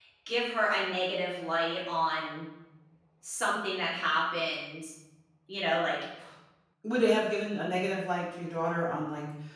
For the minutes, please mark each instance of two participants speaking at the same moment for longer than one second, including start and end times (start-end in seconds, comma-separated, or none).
none